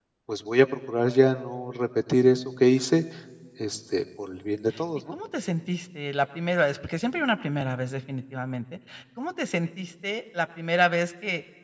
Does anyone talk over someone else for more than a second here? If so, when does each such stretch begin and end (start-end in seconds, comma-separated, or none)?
none